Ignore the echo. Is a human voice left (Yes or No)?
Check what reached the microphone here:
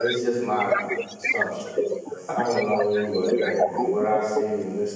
Yes